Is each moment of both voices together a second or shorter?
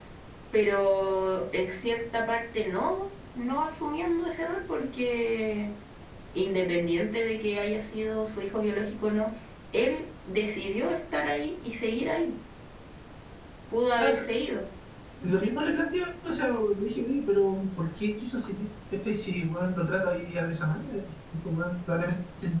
Yes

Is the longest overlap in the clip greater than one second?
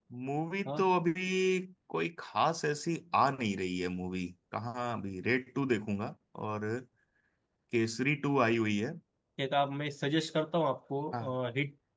No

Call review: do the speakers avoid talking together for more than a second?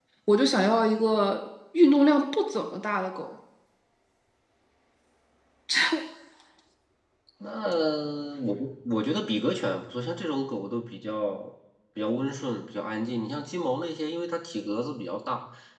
Yes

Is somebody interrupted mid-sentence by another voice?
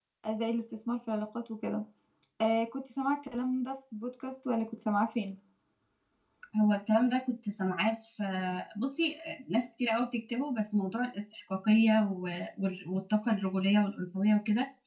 No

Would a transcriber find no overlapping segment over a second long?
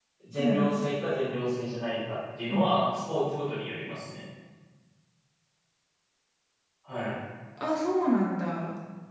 Yes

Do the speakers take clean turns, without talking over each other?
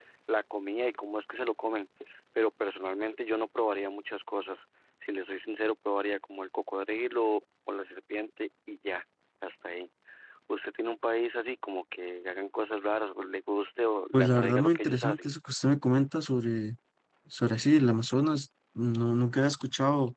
No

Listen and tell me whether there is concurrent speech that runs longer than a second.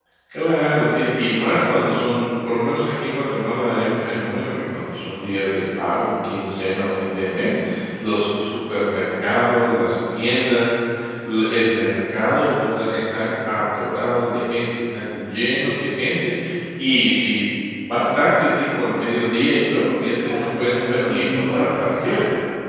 Yes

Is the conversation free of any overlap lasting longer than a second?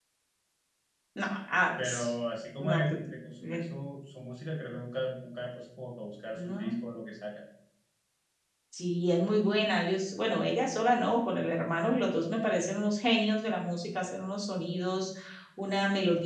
Yes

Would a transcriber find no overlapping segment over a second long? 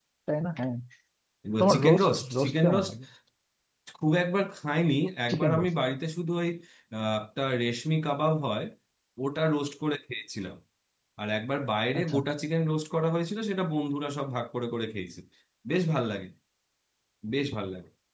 No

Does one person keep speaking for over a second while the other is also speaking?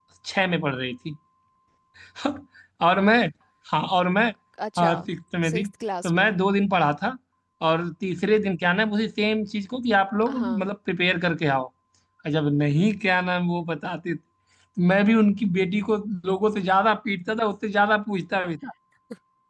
No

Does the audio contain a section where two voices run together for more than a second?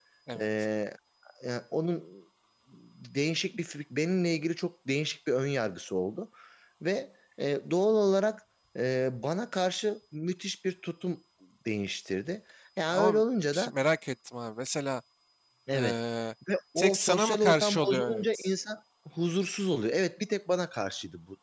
Yes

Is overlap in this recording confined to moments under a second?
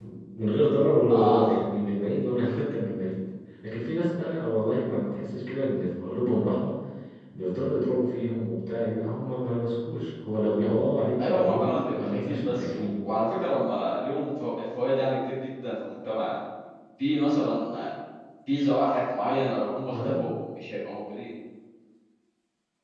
No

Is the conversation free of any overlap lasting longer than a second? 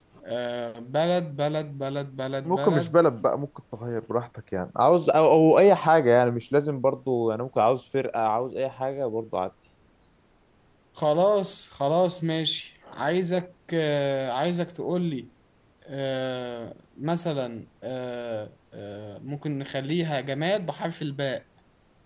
Yes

